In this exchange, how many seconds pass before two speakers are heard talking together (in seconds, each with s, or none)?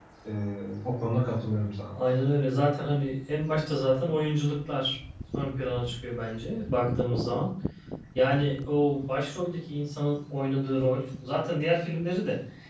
none